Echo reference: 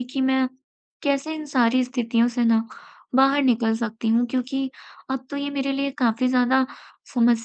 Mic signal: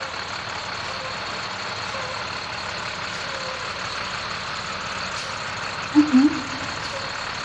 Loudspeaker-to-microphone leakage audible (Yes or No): No